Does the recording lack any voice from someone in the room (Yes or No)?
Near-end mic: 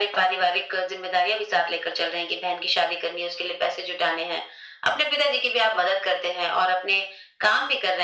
Yes